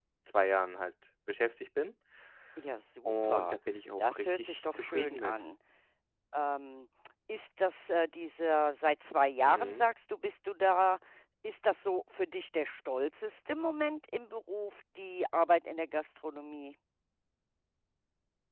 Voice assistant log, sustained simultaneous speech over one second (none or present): present